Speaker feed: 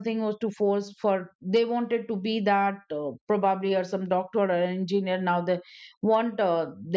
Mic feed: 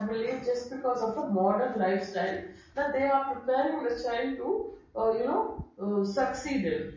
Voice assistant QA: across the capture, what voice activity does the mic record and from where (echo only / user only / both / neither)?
user only